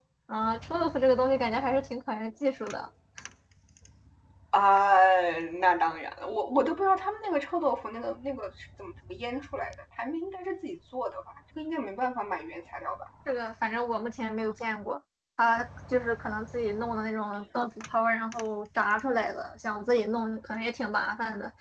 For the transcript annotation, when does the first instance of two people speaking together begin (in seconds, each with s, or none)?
none